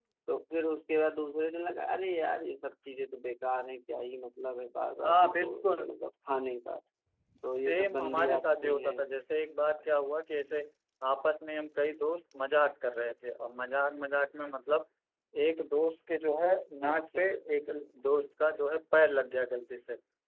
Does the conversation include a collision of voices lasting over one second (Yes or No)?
Yes